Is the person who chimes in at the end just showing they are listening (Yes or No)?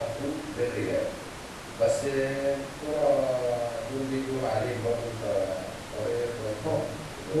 No